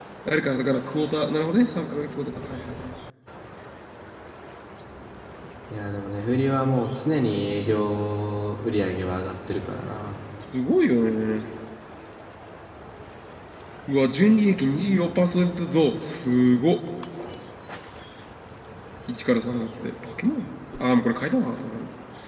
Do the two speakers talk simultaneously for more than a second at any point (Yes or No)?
No